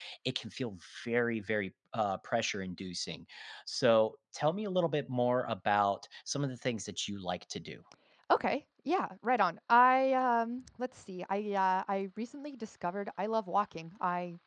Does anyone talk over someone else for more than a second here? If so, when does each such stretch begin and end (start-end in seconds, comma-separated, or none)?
none